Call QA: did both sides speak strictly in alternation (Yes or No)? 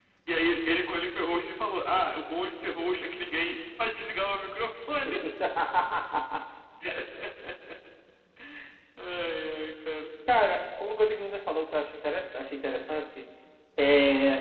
Yes